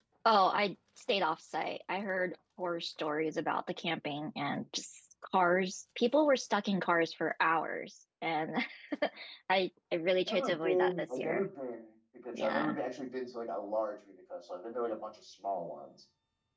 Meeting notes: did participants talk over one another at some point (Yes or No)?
Yes